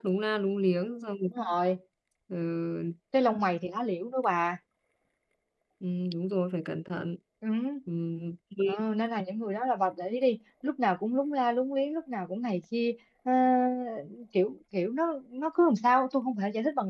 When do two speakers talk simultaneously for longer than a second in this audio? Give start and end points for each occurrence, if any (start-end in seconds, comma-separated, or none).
none